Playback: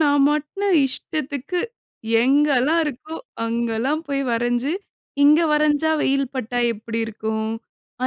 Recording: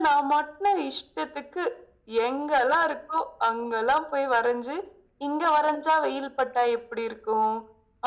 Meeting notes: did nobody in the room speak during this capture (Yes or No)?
Yes